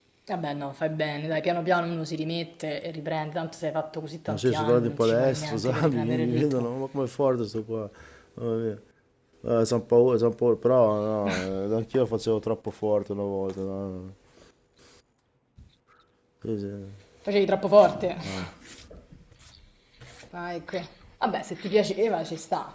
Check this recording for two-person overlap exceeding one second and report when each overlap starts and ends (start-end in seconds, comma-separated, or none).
4.3-6.7